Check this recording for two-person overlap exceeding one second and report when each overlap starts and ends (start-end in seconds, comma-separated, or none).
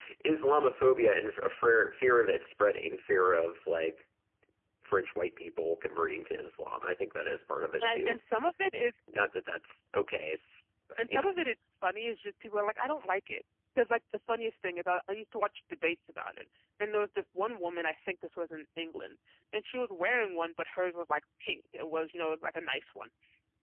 none